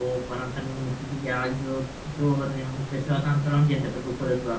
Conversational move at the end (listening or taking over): listening